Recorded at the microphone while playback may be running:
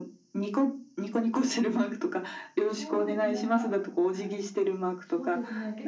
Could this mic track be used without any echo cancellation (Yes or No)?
No